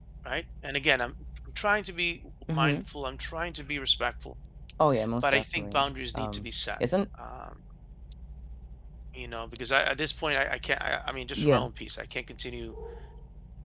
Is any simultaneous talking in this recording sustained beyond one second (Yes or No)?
Yes